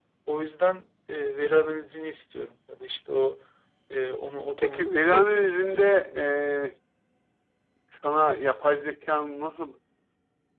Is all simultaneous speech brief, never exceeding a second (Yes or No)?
No